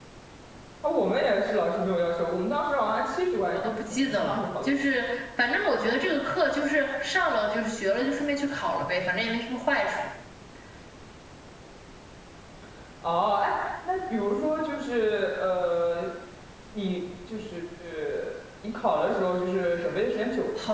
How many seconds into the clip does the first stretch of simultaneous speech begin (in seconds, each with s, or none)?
3.5 s